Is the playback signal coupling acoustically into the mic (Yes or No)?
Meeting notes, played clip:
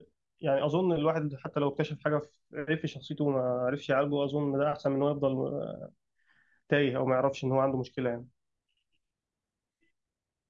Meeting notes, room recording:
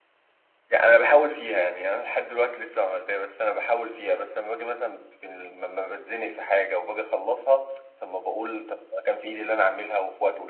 No